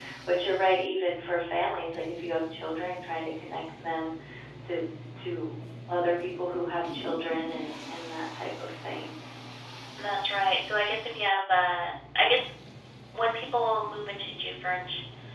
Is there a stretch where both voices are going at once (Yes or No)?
No